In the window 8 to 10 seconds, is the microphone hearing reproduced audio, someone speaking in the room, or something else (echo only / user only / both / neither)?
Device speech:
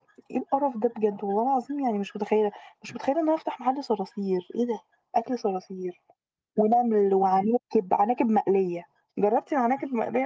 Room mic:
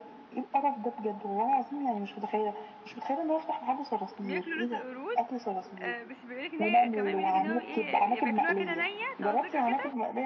both